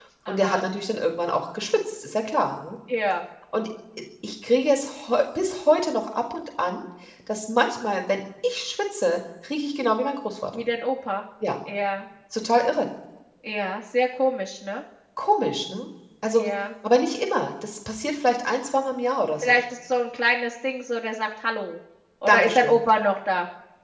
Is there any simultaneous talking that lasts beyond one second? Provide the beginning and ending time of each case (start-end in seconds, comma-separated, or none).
none